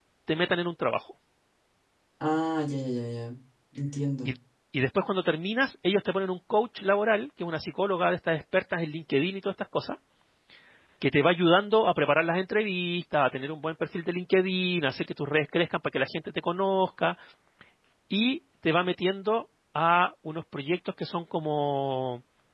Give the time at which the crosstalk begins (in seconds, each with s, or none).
none